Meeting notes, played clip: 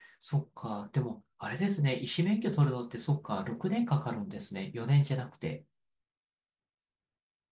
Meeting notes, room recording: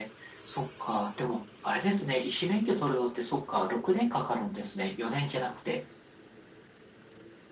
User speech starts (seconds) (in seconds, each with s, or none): none